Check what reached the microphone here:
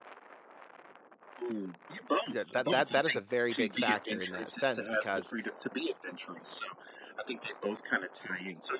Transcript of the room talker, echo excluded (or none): Yeah, that that that is a very big factor in that sense because